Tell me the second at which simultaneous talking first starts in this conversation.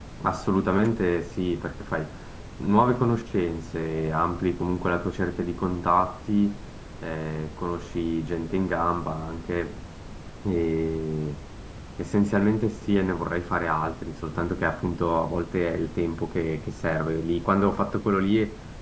none

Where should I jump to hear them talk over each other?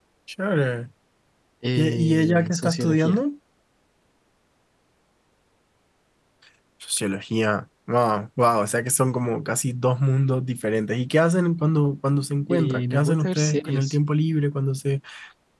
1.8 s

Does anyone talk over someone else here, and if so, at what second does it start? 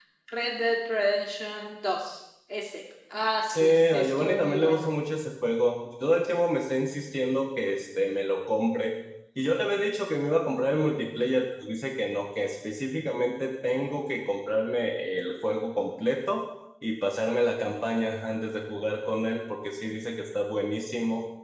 3.5 s

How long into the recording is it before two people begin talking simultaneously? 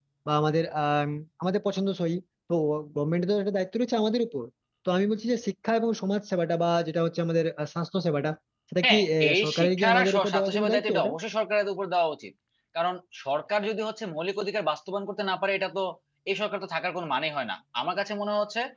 8.8 s

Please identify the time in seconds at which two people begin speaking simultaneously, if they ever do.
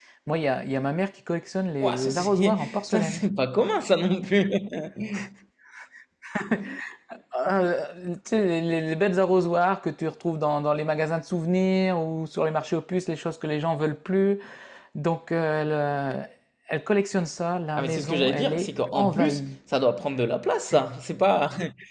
1.8 s

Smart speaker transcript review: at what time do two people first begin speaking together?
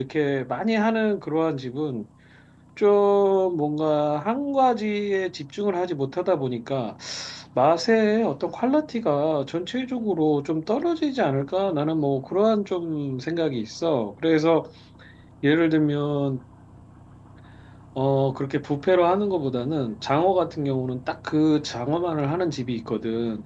none

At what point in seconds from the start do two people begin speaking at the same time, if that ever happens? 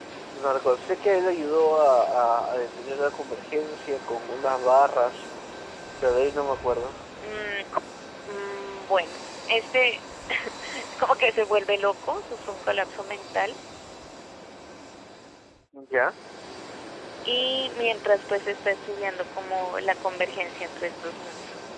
none

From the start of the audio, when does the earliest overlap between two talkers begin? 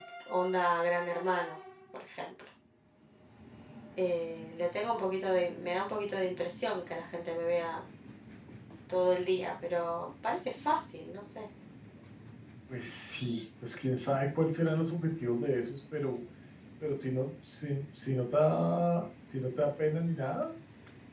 none

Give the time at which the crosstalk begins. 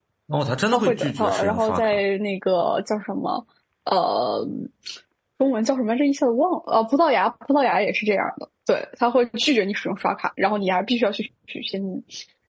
0.7 s

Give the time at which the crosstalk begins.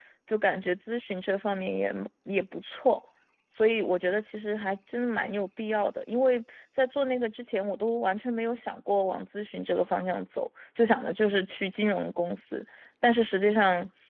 none

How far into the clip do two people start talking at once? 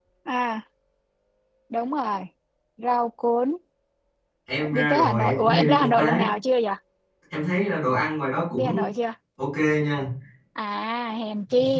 4.7 s

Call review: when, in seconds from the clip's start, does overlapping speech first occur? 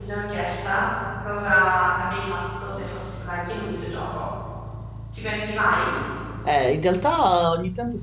none

